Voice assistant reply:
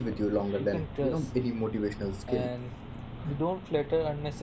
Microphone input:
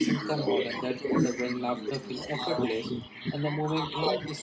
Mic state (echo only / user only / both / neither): both